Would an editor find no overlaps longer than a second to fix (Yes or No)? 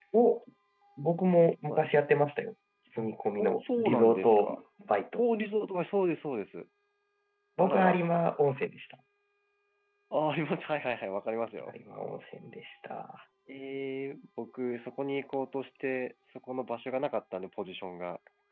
No